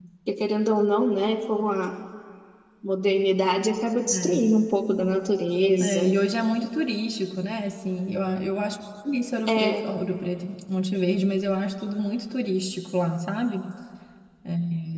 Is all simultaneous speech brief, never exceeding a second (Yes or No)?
Yes